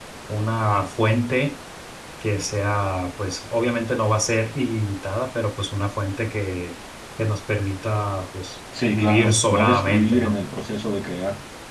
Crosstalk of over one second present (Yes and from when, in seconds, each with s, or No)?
Yes, from 8.7 s